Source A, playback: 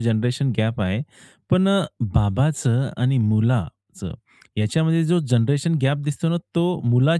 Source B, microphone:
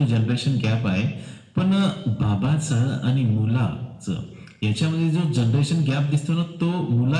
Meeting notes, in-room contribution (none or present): none